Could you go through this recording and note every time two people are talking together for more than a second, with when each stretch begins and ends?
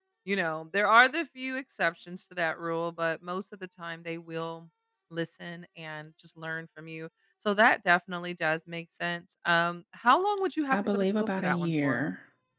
10.7-12.0

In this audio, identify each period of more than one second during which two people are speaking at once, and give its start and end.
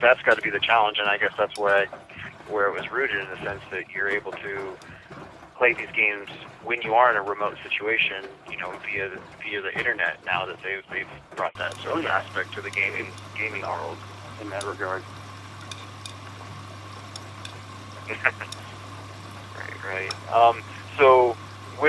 12.8-14.0

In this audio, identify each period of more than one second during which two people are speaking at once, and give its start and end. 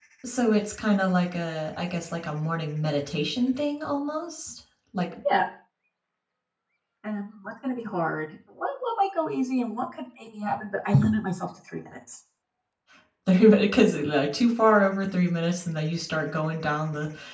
none

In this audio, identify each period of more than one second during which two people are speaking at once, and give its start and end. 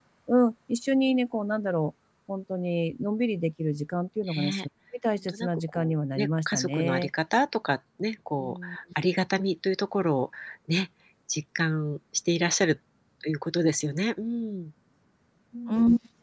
5.3-7.1

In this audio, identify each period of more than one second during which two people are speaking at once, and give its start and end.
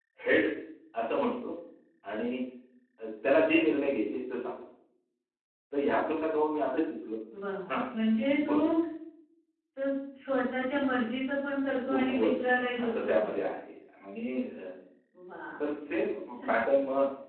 11.9-13.4

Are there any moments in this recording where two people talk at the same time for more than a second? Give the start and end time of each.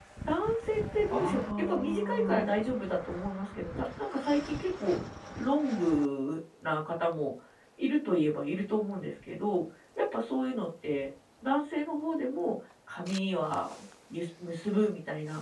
1.1-2.4

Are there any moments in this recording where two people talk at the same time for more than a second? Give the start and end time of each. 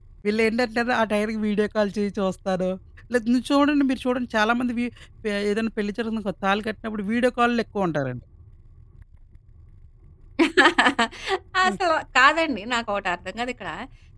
none

